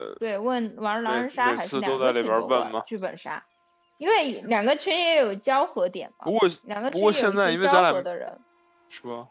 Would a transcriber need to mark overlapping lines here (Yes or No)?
Yes